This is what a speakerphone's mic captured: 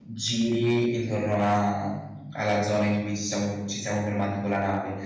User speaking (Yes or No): Yes